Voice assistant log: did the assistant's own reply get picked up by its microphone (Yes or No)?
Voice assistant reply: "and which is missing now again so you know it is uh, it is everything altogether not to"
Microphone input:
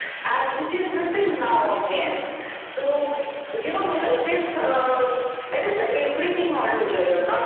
Yes